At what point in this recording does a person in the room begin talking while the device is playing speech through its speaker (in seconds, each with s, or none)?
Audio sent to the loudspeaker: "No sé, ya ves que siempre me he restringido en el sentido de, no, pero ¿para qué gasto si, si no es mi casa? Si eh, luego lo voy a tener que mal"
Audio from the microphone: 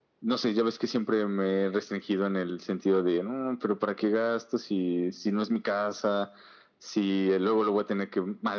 none